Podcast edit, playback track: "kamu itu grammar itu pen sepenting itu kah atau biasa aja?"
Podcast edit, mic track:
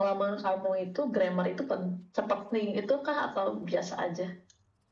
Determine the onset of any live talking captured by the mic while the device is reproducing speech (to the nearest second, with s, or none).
none